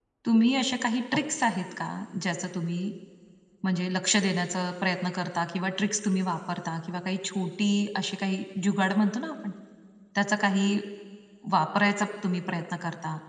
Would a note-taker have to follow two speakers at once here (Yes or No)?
No